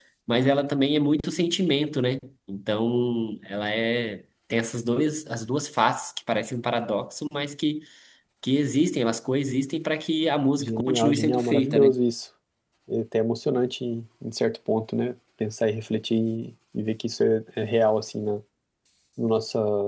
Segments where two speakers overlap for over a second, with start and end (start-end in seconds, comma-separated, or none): 10.6-12.0